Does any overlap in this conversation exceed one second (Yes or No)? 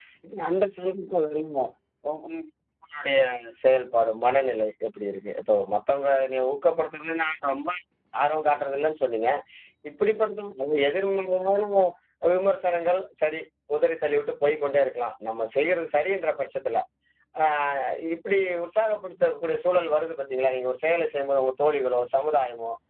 No